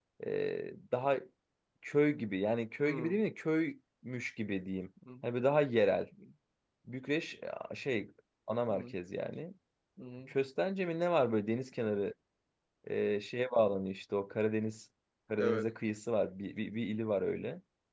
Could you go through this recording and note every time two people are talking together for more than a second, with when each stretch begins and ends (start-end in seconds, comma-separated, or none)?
none